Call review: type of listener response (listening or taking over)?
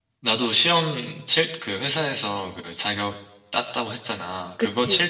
listening